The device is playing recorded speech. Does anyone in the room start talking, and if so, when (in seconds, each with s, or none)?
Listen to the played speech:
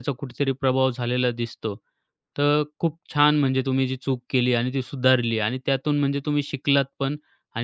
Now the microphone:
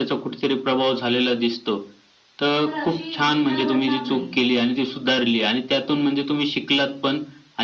2.6 s